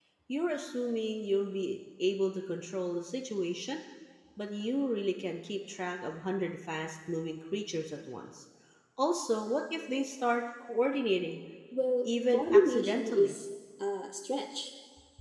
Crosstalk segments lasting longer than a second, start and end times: 12.1-13.3

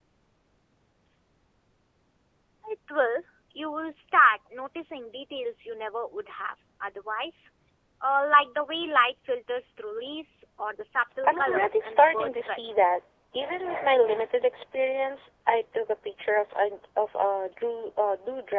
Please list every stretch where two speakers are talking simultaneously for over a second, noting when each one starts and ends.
11.2-12.6

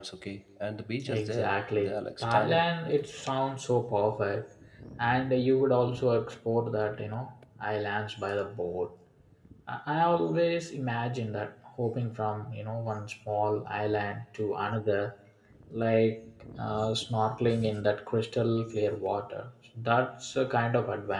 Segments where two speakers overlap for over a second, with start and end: 1.1-2.6

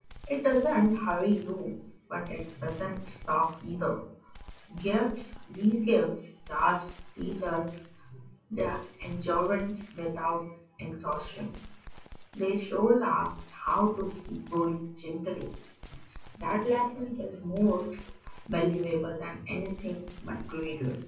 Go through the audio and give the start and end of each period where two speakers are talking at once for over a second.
none

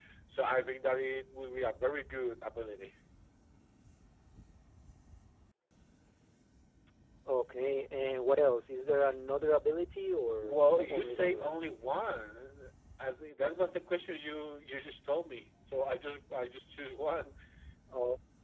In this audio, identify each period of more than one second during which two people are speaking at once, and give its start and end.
10.4-11.6

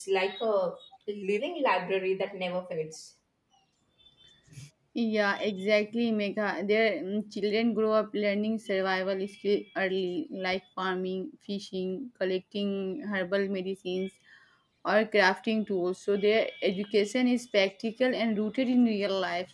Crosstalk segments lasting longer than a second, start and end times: none

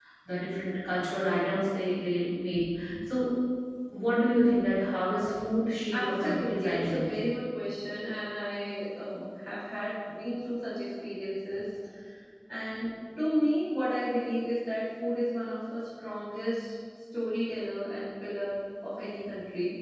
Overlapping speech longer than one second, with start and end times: 5.9-7.3

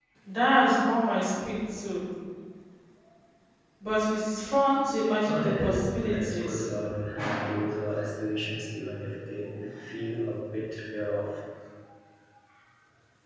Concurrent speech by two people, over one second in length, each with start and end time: 5.3-6.7

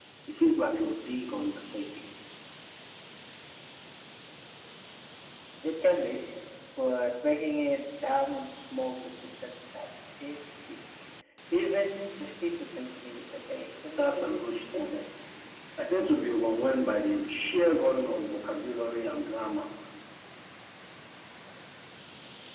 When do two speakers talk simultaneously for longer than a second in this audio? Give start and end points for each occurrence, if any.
14.0-15.2

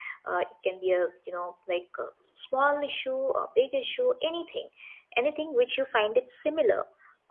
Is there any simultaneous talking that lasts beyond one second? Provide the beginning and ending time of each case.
none

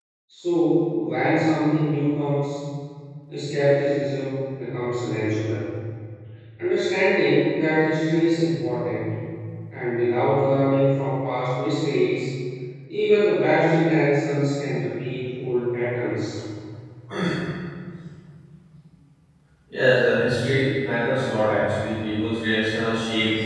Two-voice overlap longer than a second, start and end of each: none

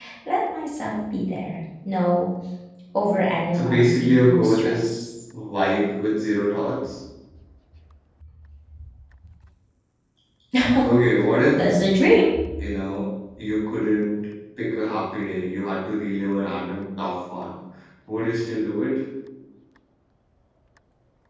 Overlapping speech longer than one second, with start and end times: 3.5-5.0

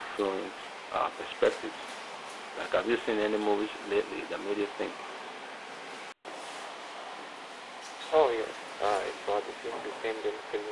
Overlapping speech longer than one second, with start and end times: none

